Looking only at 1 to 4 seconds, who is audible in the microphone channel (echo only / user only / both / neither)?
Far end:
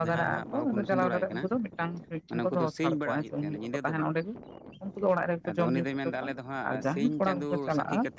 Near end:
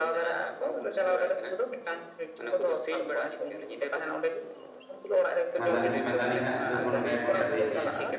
echo only